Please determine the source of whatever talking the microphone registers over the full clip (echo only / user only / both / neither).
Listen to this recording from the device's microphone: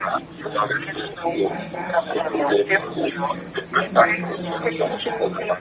both